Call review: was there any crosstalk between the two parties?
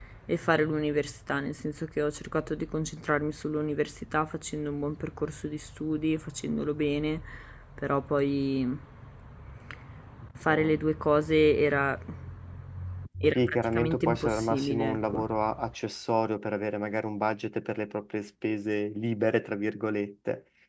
Yes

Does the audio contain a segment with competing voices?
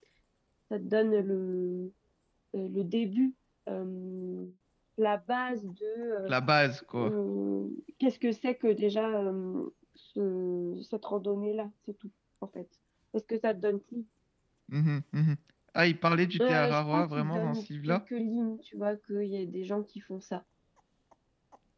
Yes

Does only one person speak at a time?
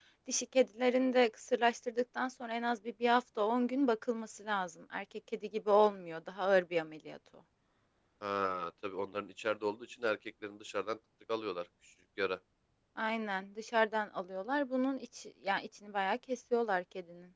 Yes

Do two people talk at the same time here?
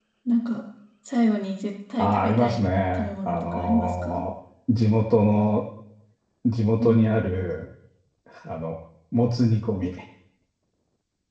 Yes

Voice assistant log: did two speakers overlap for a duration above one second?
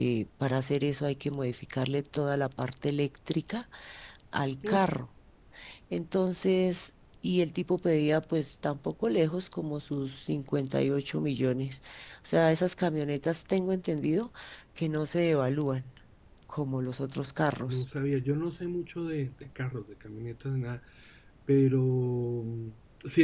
No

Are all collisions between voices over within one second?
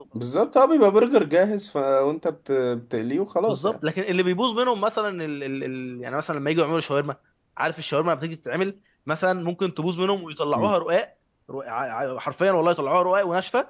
Yes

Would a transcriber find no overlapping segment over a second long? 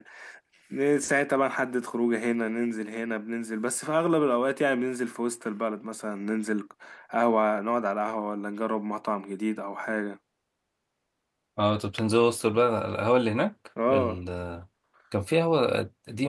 Yes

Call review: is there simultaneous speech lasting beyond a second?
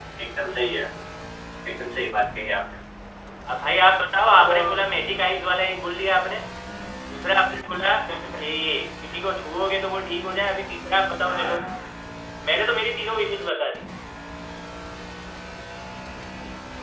No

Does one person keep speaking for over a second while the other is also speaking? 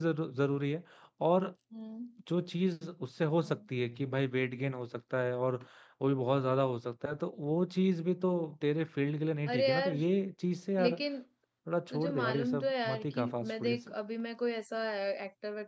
Yes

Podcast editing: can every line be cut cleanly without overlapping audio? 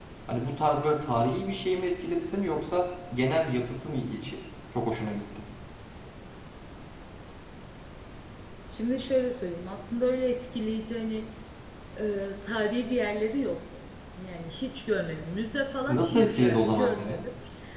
No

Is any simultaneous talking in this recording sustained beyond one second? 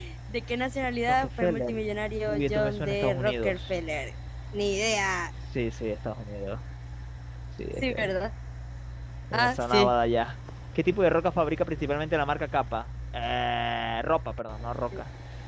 Yes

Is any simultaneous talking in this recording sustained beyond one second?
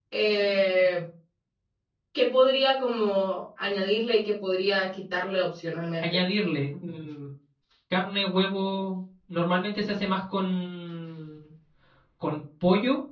No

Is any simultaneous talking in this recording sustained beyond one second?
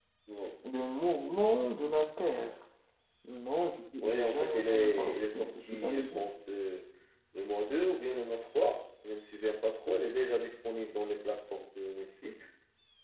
Yes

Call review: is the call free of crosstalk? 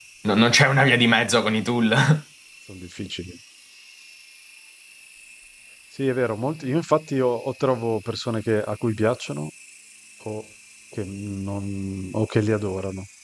Yes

